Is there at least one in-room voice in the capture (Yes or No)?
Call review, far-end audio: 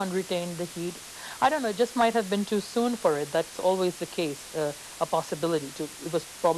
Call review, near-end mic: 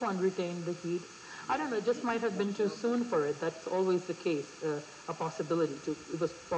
Yes